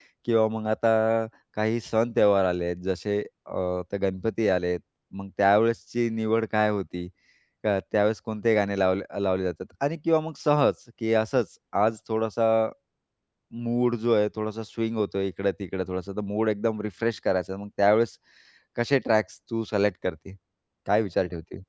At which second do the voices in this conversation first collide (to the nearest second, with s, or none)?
none